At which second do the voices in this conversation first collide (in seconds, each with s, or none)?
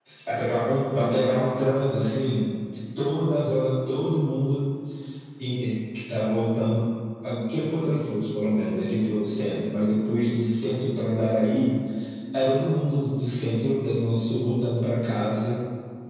none